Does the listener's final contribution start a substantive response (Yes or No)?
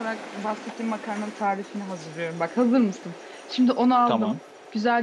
No